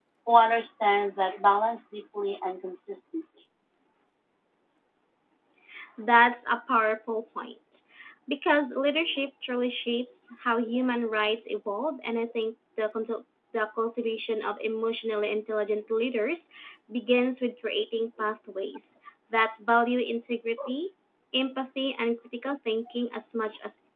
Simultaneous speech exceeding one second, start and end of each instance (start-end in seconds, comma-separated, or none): none